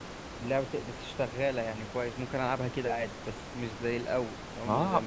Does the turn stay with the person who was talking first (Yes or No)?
No